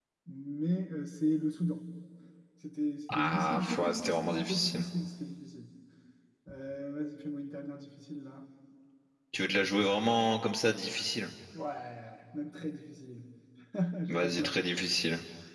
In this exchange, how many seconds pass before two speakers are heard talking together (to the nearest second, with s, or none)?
3 s